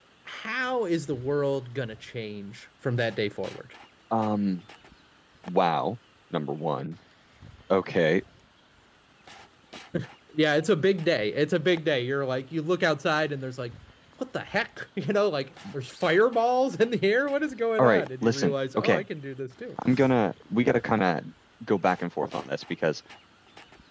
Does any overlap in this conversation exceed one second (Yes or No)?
Yes